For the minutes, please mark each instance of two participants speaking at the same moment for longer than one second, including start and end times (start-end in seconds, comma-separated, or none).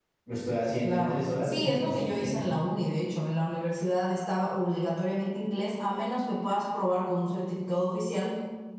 0.8-2.5